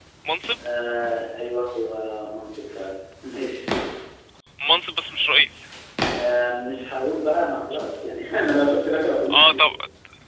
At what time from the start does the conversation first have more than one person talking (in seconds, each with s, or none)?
none